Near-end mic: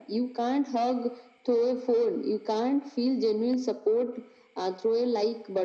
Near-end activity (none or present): none